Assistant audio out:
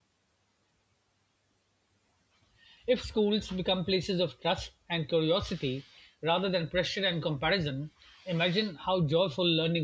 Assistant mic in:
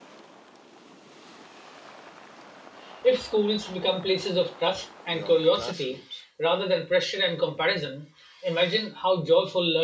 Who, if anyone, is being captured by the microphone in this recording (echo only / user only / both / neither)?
both